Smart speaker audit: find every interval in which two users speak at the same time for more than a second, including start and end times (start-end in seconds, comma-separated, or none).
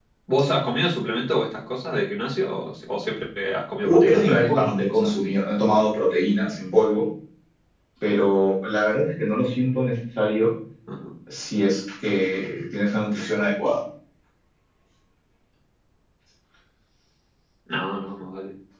3.8-5.3